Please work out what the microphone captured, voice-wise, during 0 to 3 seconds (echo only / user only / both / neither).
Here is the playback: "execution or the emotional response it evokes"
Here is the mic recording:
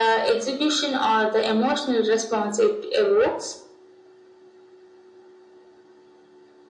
echo only